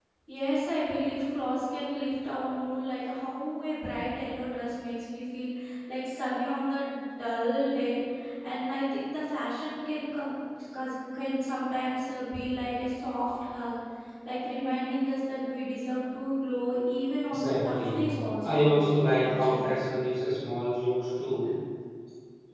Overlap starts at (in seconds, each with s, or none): 17.3 s